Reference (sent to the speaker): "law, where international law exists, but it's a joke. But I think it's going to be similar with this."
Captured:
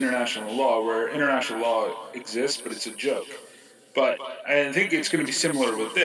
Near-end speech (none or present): none